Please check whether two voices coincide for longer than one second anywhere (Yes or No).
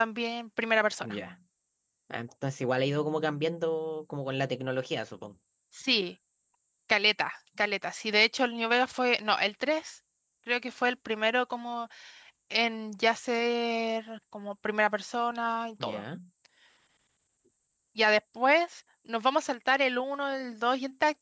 No